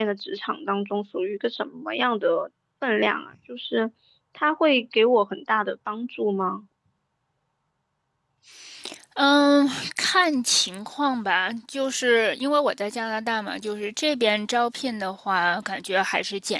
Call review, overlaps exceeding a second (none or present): none